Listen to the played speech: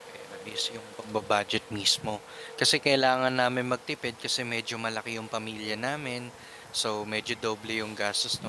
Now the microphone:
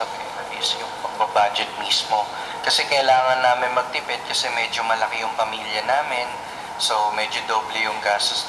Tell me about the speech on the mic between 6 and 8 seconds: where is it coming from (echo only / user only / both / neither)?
echo only